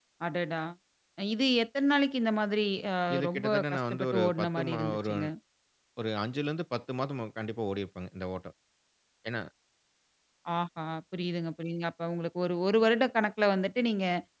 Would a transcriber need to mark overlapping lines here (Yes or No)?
Yes